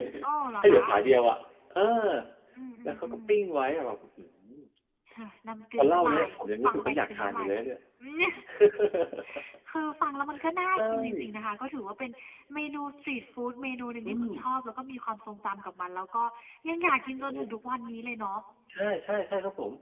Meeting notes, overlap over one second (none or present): present